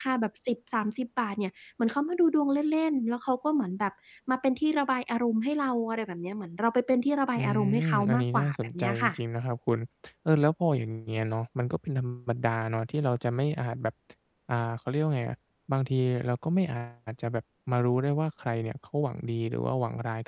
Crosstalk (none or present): present